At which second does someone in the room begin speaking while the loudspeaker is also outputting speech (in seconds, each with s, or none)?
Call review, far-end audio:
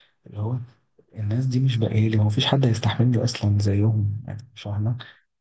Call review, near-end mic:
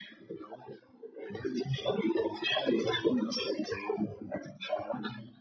none